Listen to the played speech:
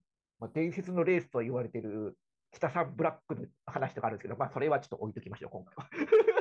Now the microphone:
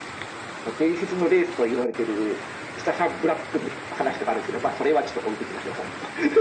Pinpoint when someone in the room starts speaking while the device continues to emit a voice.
none

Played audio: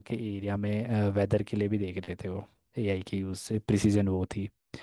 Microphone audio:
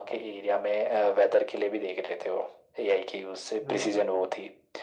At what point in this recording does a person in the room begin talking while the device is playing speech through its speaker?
3.6 s

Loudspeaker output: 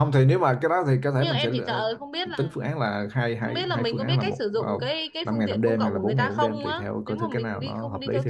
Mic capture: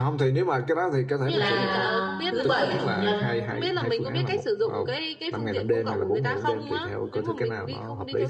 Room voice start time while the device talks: 1.3 s

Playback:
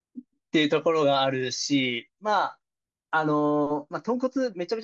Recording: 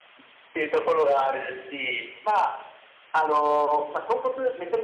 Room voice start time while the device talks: none

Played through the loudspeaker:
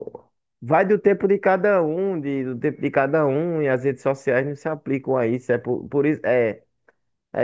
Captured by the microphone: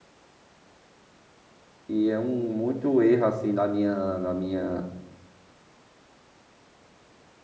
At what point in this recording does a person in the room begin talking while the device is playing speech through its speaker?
1.9 s

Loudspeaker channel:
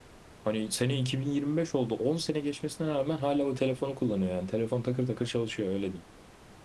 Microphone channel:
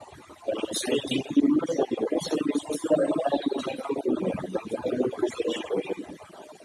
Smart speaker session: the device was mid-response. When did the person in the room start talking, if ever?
none

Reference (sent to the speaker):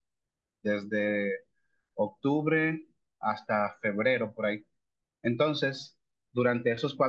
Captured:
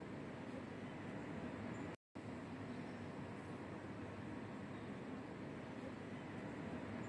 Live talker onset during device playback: none

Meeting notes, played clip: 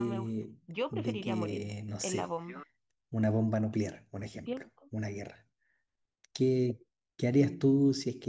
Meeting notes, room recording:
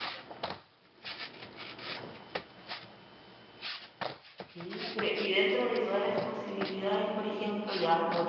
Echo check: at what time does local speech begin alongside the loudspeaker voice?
4.5 s

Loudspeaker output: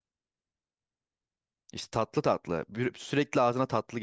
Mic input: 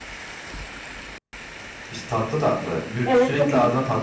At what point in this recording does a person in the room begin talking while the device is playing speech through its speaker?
3.0 s

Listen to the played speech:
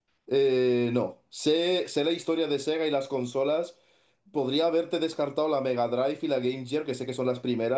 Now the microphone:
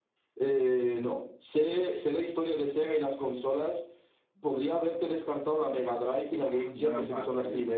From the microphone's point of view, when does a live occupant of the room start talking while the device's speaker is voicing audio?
6.2 s

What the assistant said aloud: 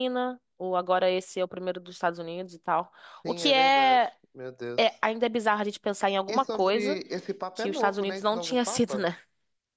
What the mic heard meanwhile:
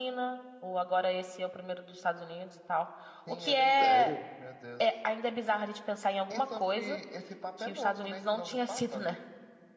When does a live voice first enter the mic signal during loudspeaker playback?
3.8 s

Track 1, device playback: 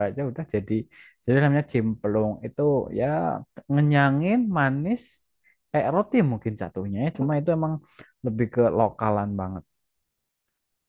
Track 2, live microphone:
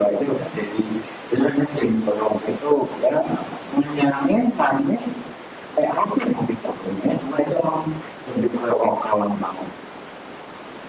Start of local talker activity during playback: none

